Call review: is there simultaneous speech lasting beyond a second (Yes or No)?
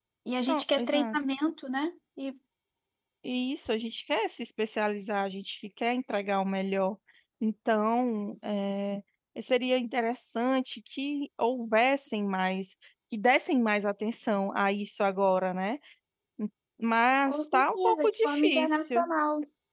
Yes